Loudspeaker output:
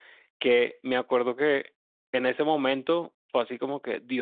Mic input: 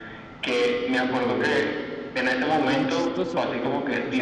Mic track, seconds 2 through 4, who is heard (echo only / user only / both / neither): both